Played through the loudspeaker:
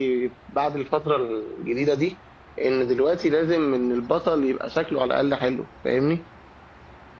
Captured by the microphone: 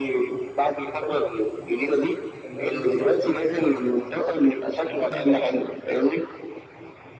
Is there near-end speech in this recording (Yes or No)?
Yes